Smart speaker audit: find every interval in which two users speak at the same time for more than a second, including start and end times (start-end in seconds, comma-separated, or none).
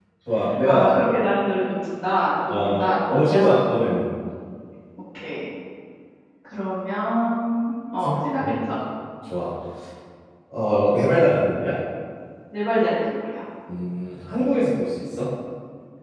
2.5-3.7